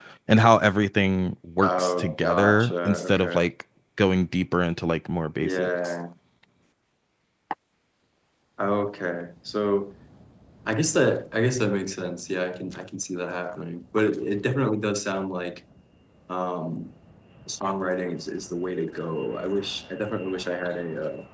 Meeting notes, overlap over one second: present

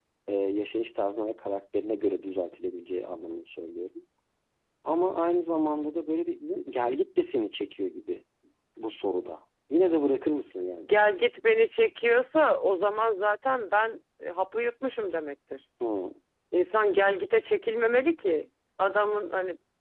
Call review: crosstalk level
none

